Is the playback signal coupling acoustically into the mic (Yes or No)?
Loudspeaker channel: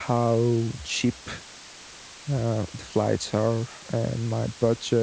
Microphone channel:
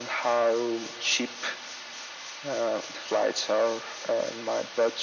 Yes